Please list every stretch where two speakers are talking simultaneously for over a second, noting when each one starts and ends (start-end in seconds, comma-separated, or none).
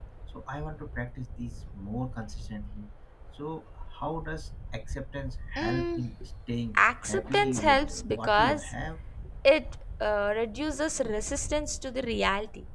6.8-8.7